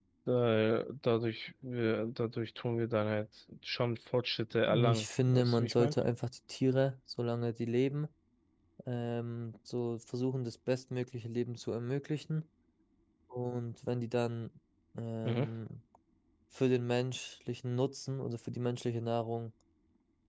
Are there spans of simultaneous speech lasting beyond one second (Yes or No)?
Yes